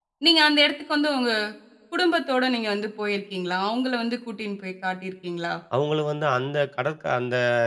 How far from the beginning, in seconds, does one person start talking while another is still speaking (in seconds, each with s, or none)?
none